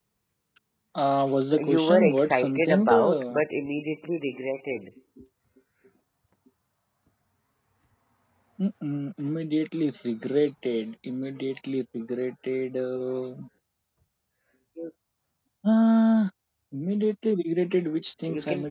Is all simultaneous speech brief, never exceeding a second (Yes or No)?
No